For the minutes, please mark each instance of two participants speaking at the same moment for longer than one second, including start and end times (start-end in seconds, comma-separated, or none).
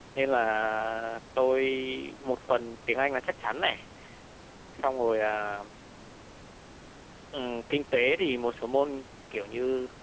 none